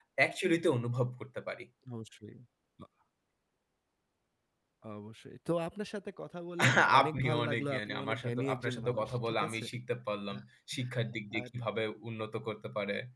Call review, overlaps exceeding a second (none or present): present